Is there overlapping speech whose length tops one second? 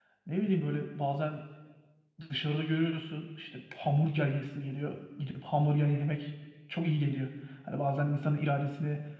No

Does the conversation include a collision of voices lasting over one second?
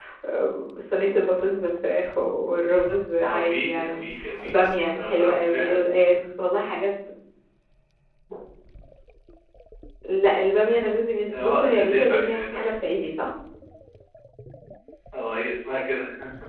Yes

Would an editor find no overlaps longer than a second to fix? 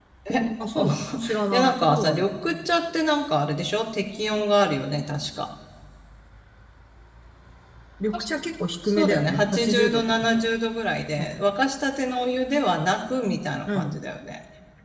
No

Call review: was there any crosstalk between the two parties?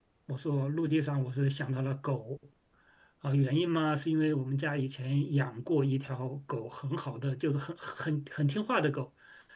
No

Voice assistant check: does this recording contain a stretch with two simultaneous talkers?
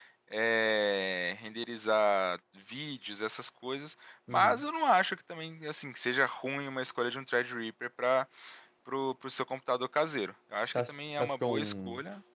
Yes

